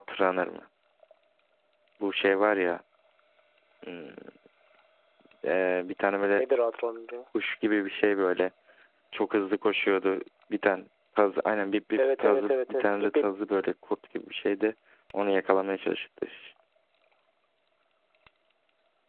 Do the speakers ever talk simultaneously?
Yes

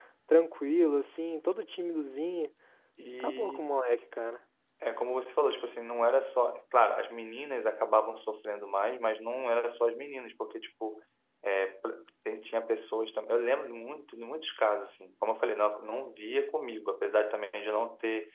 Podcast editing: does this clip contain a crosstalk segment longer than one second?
No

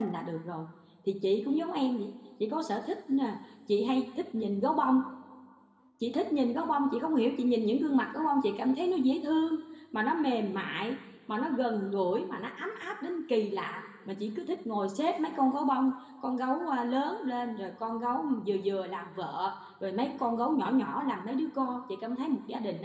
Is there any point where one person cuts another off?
No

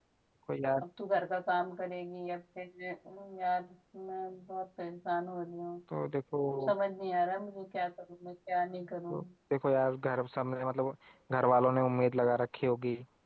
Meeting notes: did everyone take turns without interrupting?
Yes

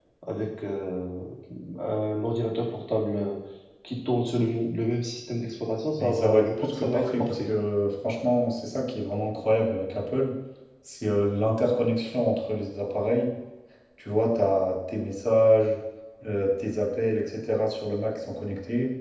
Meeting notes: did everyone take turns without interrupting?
No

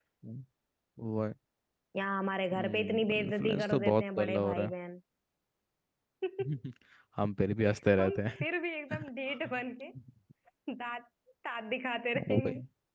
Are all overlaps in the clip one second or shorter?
No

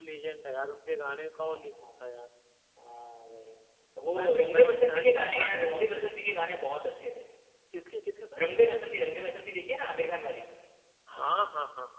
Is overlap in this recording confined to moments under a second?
No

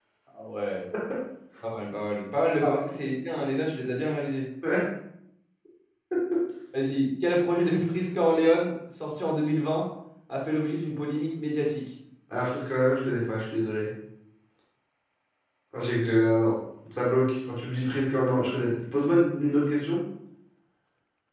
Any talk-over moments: No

